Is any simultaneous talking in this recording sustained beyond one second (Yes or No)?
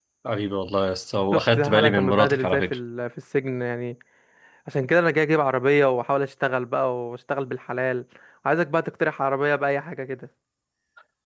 Yes